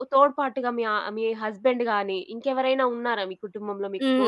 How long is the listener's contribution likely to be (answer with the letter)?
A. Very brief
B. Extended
B